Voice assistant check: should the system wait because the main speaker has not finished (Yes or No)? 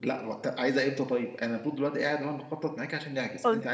No